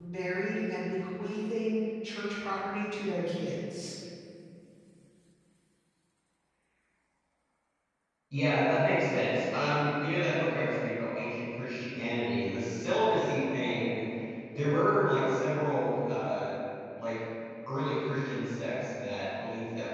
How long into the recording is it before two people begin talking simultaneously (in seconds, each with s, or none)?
none